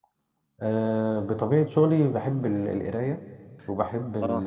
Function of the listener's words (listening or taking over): listening